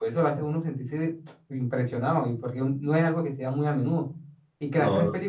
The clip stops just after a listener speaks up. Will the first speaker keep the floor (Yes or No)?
Yes